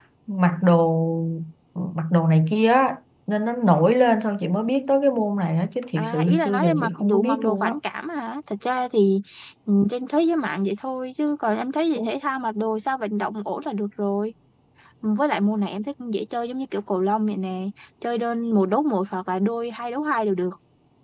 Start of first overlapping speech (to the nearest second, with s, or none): 6 s